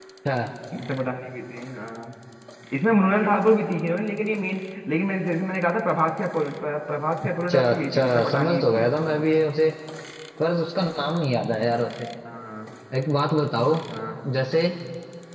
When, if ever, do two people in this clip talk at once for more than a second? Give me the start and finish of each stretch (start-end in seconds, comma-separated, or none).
7.5-8.8